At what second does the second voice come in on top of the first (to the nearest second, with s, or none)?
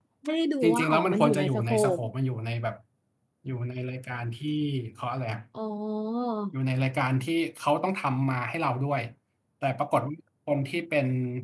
1 s